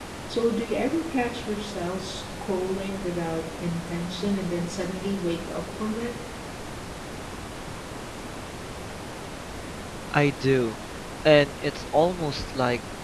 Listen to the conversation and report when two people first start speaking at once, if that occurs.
none

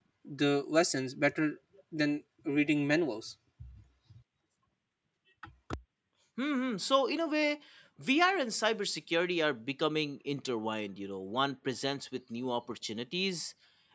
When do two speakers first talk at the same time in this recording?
none

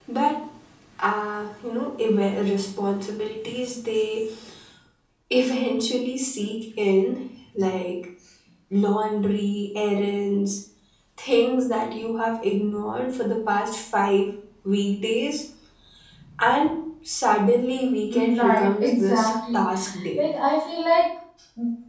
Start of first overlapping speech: 18.1 s

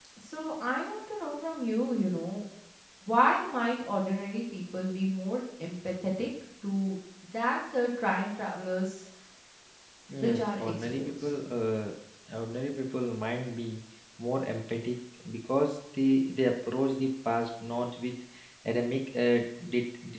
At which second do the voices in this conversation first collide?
10.2 s

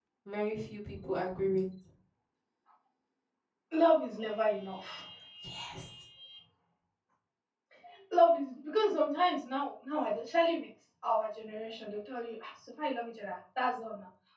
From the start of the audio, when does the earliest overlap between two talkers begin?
none

